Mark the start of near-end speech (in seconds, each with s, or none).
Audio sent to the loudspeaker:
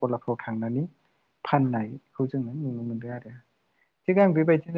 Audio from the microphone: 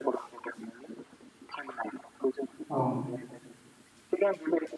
2.5 s